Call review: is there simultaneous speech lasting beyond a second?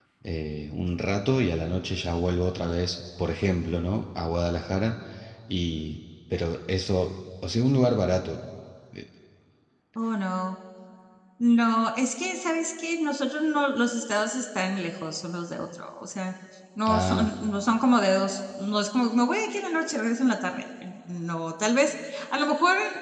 No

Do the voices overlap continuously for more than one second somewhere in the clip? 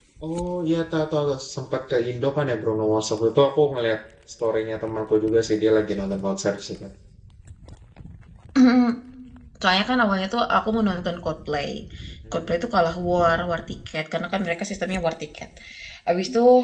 No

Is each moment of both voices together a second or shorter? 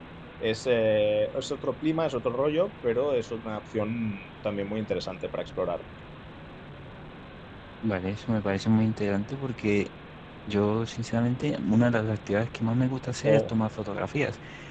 Yes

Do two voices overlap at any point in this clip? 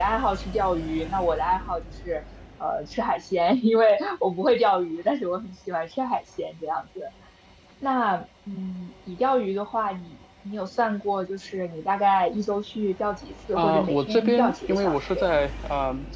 Yes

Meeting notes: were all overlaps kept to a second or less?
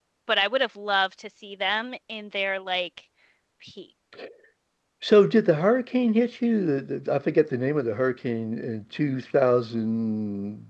Yes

